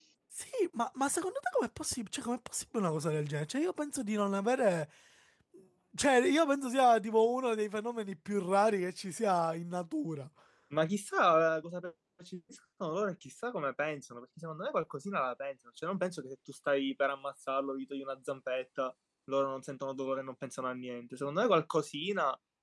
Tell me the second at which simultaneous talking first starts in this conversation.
none

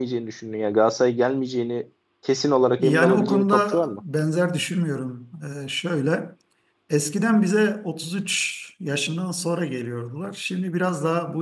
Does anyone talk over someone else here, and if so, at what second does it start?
2.8 s

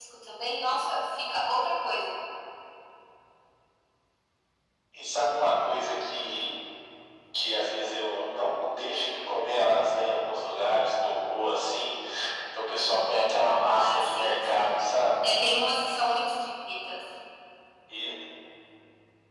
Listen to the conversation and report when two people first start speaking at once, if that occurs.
13.5 s

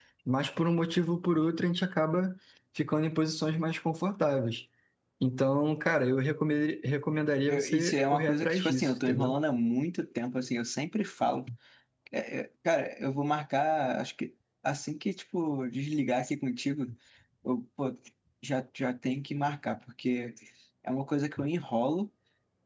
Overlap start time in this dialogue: 7.5 s

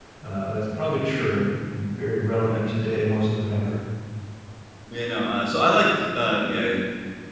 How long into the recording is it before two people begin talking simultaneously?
none

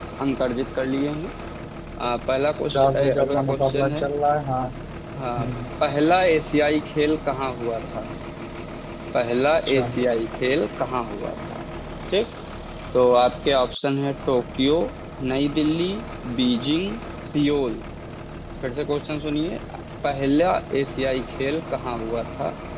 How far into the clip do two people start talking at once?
2.7 s

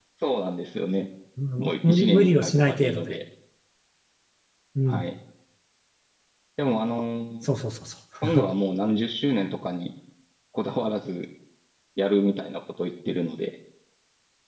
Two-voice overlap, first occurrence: 1.6 s

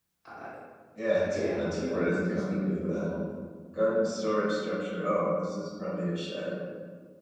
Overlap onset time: 1.1 s

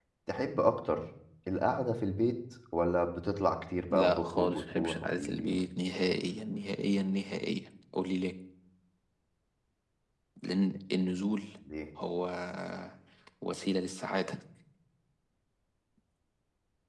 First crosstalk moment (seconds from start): 3.9 s

